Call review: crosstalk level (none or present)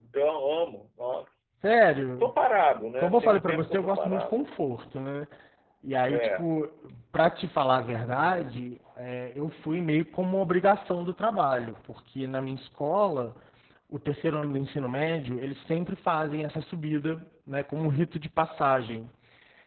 present